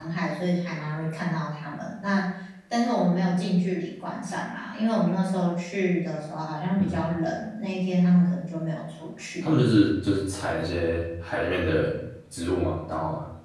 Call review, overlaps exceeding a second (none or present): none